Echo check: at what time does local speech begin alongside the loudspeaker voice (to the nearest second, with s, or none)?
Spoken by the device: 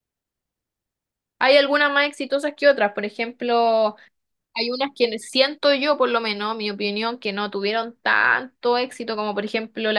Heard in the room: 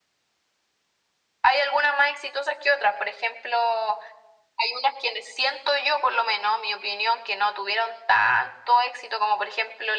none